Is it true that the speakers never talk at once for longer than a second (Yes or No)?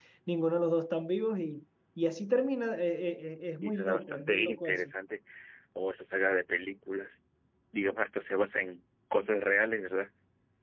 No